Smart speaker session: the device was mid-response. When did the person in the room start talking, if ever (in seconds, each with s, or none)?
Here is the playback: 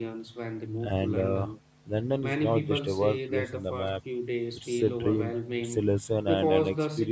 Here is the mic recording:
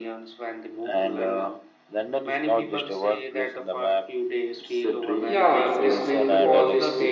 5.2 s